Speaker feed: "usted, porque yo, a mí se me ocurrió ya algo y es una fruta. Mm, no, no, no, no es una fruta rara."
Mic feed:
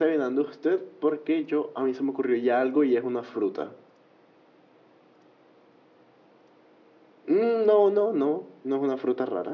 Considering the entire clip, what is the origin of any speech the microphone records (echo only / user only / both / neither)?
echo only